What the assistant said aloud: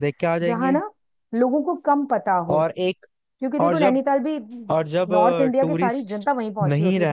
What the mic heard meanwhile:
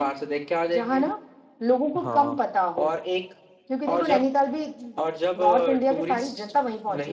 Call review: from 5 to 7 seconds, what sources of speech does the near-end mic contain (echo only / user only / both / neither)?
echo only